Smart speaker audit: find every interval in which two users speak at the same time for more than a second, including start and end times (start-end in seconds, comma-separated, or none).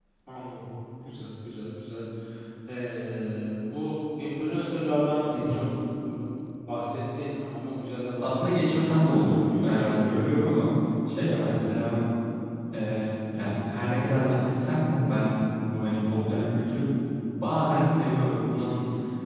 8.2-10.1